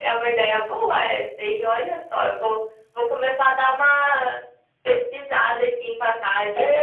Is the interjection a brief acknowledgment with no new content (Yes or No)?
No